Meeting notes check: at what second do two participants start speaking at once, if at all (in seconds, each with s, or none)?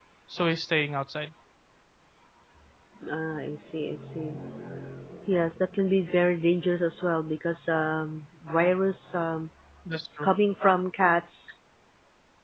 none